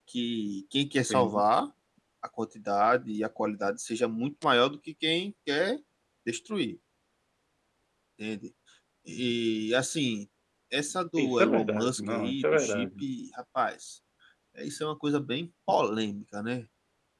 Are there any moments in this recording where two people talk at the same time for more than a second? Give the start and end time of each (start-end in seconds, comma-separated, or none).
11.2-12.9